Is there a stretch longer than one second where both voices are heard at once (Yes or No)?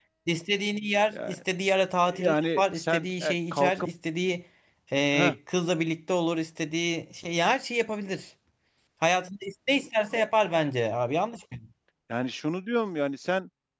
Yes